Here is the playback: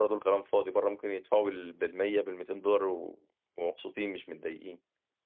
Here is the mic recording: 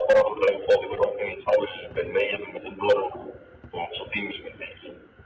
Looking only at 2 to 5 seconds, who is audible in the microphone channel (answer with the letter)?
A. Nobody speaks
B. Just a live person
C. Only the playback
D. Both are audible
C